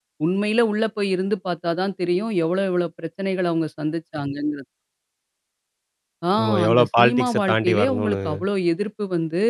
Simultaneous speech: Yes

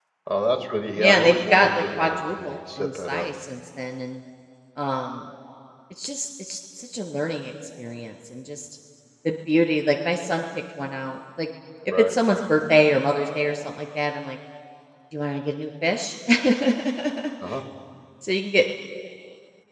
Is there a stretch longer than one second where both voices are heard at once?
Yes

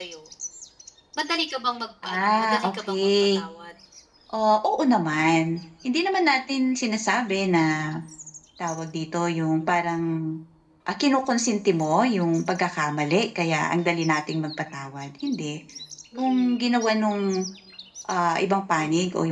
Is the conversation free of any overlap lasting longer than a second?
No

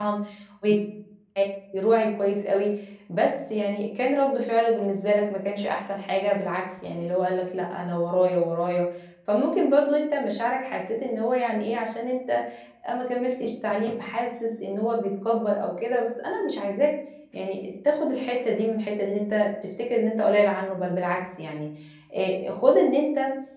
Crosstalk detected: No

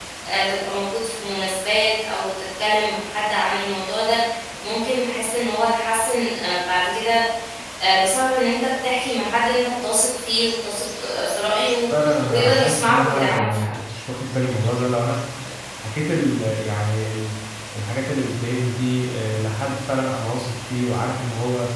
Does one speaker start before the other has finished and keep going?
Yes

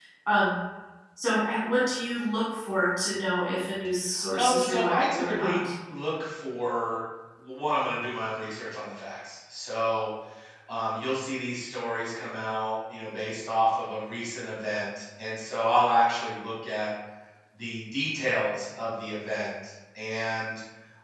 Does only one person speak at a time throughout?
No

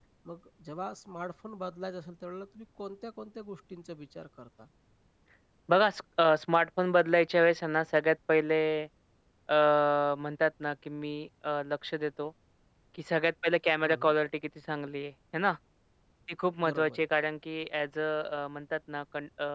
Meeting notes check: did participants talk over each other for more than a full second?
No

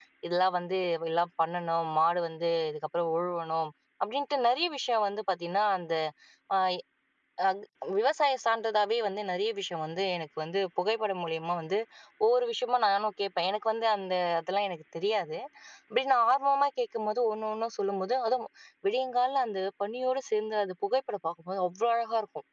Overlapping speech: No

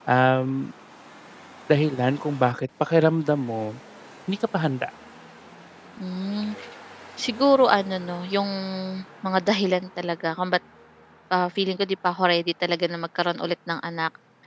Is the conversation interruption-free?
Yes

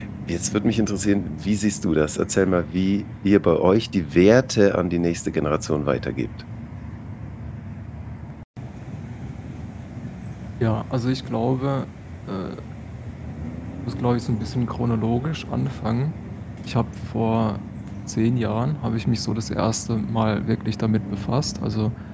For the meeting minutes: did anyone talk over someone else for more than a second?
No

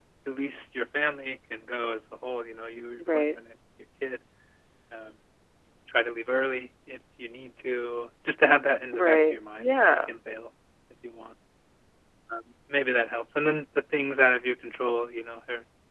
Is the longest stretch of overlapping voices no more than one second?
No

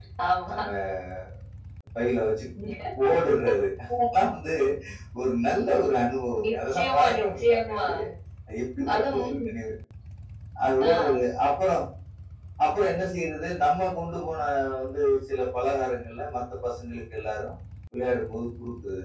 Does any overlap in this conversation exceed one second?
Yes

